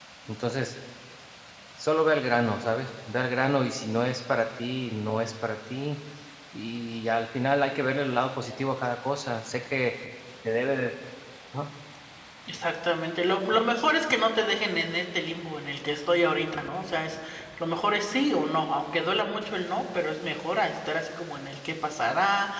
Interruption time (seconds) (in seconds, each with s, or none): none